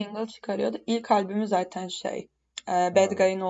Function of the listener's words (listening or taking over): listening